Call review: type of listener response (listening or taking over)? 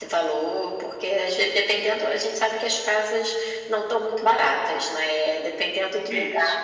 listening